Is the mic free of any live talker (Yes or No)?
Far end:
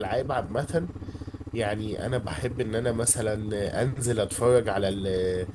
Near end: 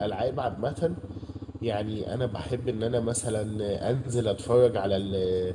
Yes